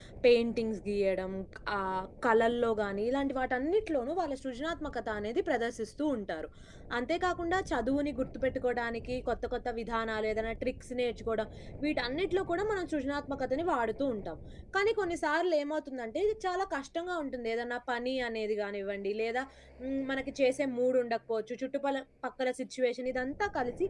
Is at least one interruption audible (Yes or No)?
No